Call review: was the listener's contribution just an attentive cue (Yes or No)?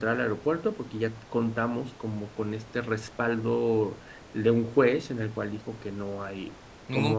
Yes